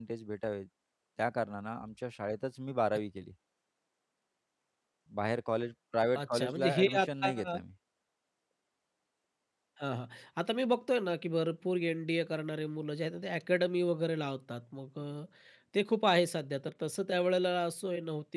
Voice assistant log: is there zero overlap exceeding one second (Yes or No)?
No